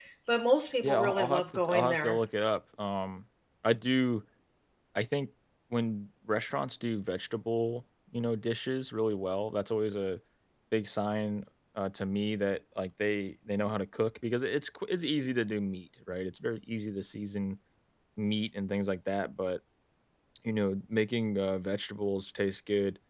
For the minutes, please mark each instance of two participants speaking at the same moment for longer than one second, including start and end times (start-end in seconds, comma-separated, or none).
0.8-2.2